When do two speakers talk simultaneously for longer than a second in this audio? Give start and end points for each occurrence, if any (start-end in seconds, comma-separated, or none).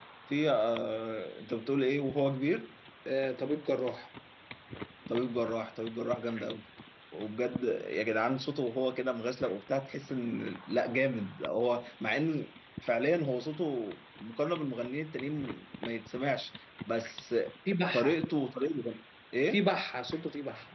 none